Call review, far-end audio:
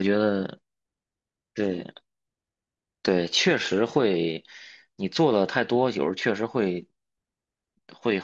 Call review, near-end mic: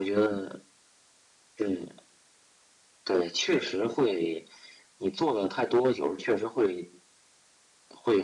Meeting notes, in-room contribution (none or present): none